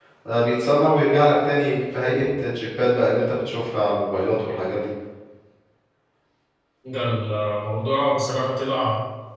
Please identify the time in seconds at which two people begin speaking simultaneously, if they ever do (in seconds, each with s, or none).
none